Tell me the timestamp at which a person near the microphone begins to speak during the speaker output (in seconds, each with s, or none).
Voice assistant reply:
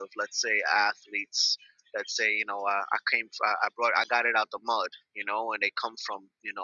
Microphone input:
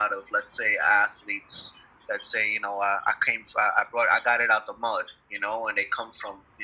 none